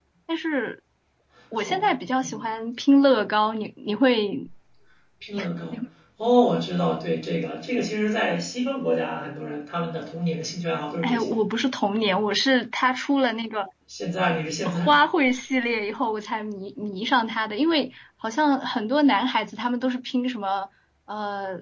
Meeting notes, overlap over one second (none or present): none